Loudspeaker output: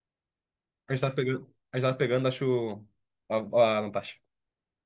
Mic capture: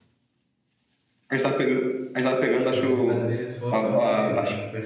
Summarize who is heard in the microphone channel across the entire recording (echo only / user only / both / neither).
both